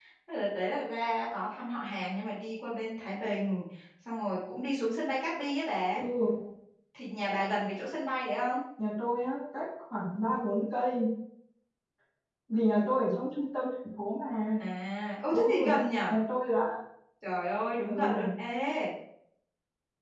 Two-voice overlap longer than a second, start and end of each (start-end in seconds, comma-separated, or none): none